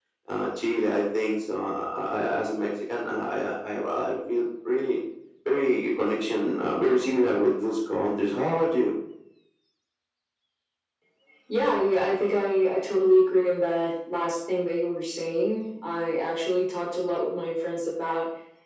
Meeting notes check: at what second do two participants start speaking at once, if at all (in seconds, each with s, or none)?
none